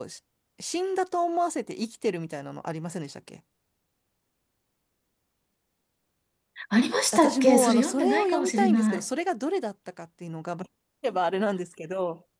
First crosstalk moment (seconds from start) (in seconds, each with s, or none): 7.1 s